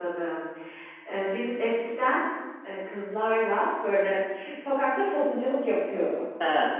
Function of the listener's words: listening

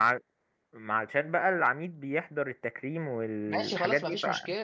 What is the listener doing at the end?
taking over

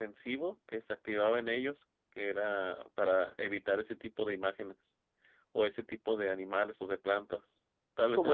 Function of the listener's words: taking over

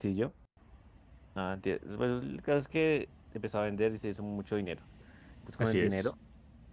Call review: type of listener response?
listening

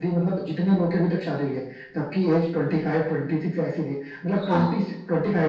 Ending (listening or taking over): listening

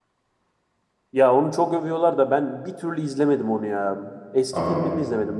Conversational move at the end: listening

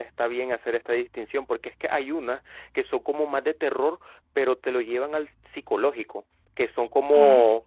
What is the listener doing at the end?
listening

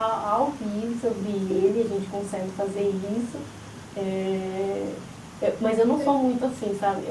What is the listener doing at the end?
listening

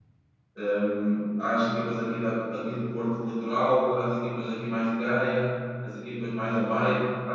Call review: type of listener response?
listening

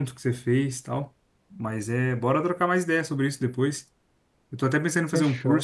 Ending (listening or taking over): listening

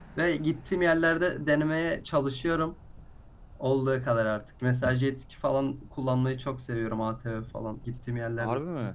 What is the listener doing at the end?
taking over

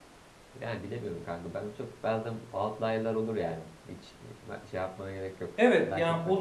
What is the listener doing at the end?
taking over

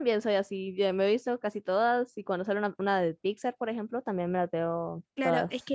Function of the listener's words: taking over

